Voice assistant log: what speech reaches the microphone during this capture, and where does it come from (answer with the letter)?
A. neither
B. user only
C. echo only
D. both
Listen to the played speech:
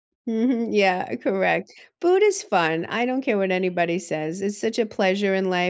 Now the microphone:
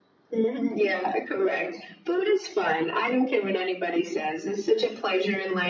C